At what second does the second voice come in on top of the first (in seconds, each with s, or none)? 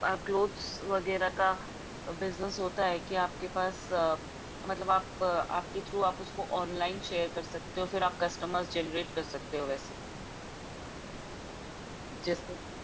none